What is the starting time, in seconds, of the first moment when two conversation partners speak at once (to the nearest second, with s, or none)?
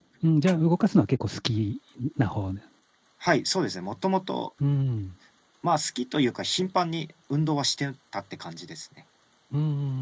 none